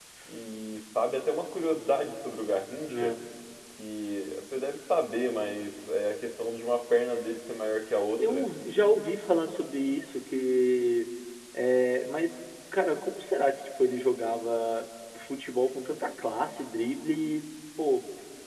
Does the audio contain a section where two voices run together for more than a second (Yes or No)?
No